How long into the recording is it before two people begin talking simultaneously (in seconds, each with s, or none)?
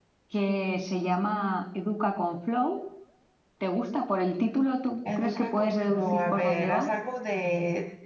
5.0 s